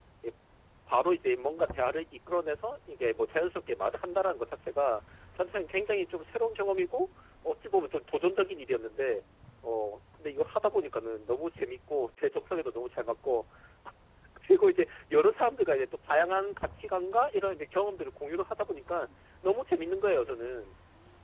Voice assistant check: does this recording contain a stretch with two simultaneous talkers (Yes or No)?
No